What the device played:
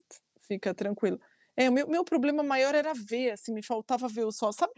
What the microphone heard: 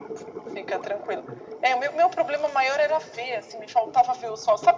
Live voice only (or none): none